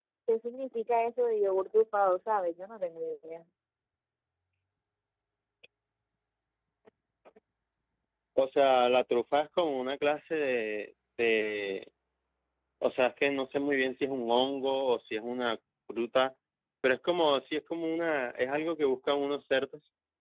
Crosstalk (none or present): none